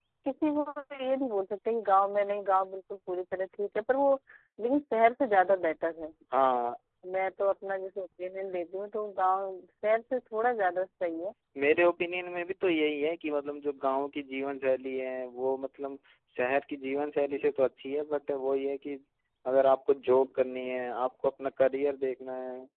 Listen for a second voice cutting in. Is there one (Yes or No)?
No